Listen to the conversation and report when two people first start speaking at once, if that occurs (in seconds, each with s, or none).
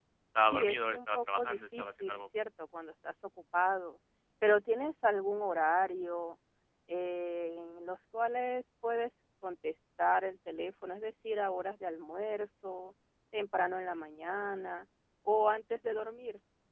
0.5 s